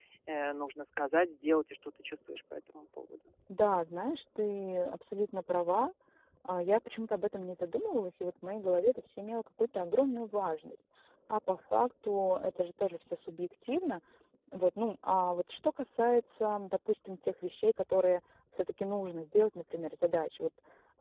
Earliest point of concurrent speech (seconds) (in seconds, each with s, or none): none